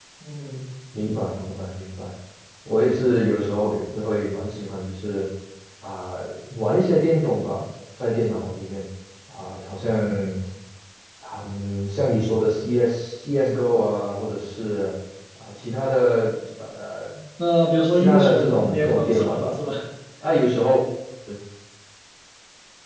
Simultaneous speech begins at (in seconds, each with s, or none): 17.9 s